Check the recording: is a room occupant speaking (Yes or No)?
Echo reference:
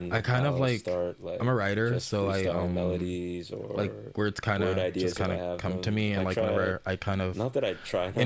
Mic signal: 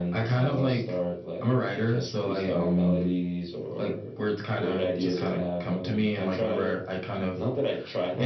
No